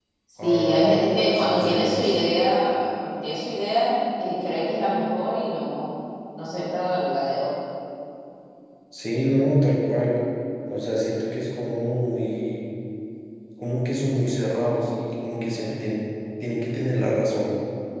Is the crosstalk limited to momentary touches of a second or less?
No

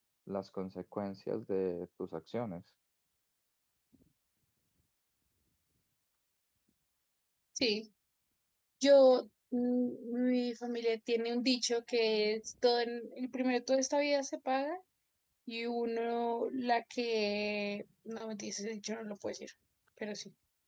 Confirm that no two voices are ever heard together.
Yes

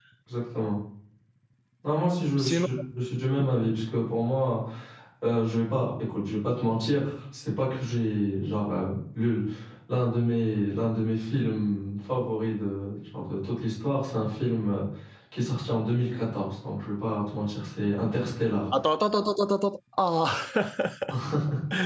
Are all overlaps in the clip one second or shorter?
Yes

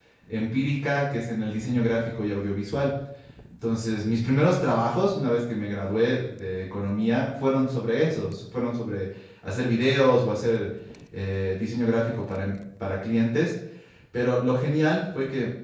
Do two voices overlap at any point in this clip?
No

